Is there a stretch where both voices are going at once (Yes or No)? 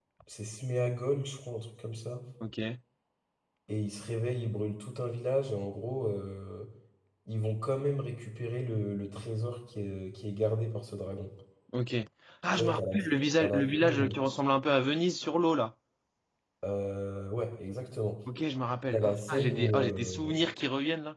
Yes